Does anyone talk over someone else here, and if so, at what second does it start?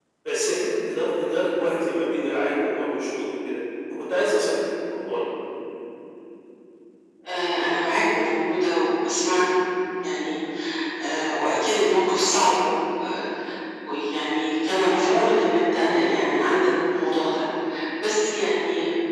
none

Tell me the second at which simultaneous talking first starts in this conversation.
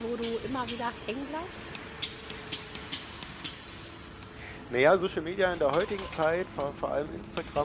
none

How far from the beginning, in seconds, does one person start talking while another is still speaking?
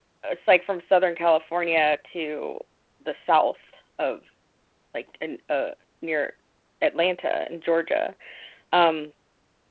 none

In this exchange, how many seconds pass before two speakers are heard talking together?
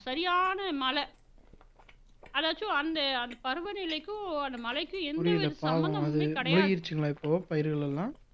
5.2 s

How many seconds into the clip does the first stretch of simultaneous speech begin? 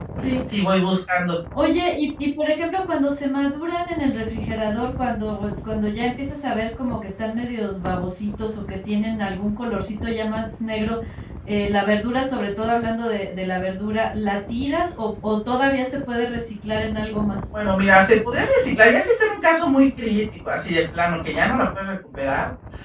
none

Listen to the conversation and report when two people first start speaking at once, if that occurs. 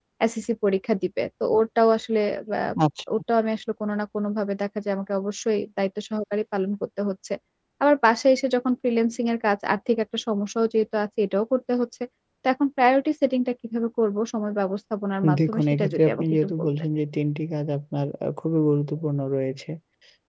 15.5 s

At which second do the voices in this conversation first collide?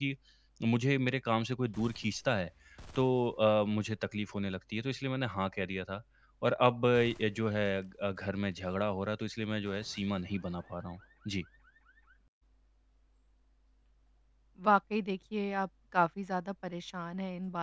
none

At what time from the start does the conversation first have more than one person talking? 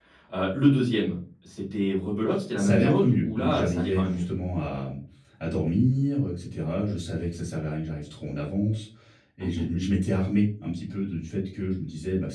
2.6 s

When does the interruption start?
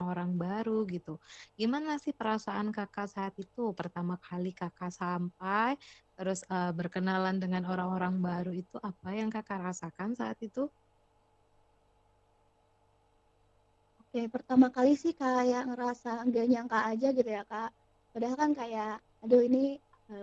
none

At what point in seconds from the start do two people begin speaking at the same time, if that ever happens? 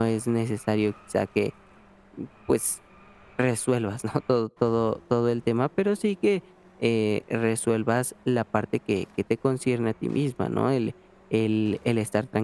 none

